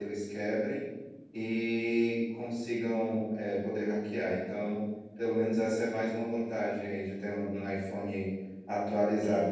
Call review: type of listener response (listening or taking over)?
listening